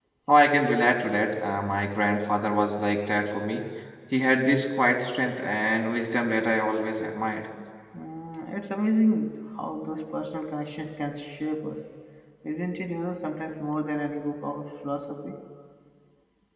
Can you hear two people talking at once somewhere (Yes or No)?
No